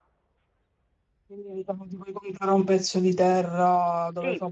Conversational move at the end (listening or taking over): taking over